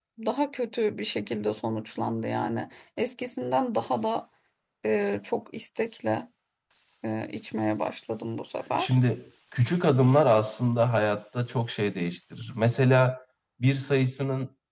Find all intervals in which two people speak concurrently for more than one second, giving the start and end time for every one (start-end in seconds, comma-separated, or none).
none